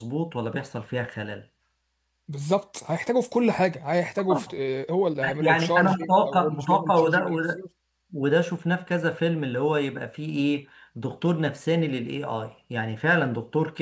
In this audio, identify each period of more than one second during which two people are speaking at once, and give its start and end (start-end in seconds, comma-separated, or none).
5.4-7.6